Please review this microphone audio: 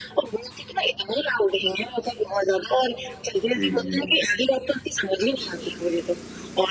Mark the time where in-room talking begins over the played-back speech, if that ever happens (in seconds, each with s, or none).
3.4 s